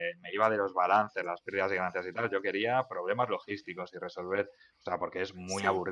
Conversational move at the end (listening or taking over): listening